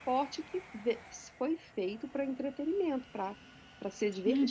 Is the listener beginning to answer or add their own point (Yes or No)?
Yes